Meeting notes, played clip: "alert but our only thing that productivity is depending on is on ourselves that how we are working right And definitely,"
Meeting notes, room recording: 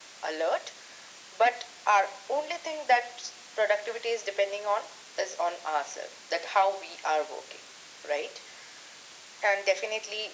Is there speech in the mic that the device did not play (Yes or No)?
No